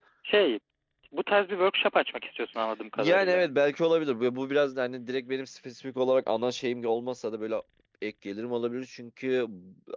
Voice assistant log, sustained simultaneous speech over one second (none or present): none